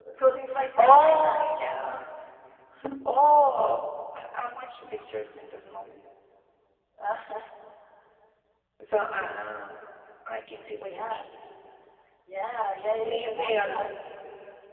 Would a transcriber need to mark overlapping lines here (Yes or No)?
Yes